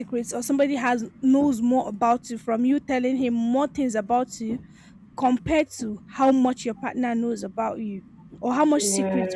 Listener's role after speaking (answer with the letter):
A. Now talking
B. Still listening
B